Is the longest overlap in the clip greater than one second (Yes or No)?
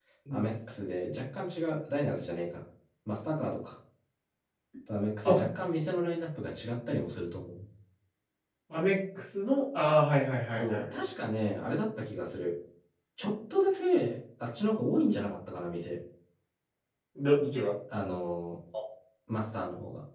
No